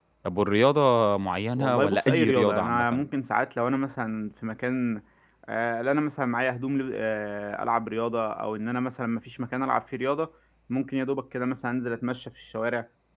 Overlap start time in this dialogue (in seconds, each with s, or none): 1.6 s